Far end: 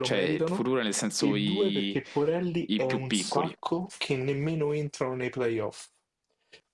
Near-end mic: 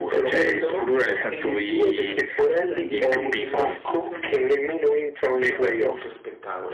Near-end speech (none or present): present